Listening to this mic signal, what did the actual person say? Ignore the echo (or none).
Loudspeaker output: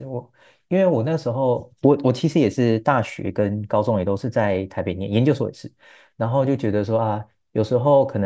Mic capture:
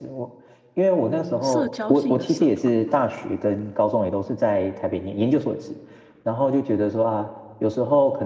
嗯社交性的社团吧。